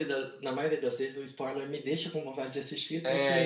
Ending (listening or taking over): taking over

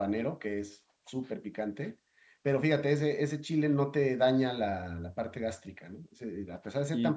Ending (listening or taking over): taking over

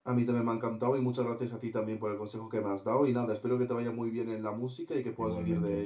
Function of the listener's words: taking over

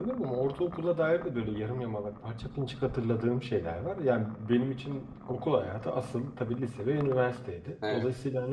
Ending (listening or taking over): listening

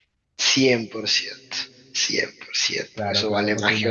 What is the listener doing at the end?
taking over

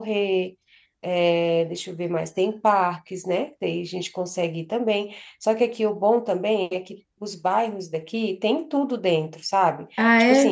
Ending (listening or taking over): taking over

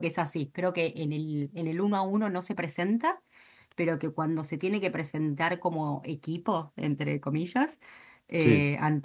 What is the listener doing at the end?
listening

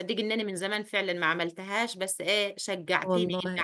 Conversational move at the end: listening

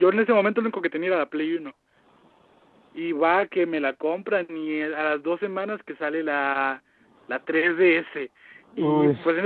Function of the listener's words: listening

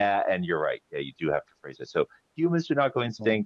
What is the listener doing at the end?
listening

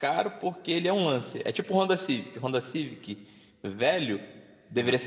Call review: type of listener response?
listening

